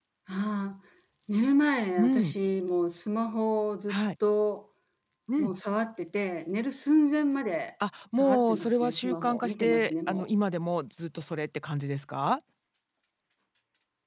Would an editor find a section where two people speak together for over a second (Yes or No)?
Yes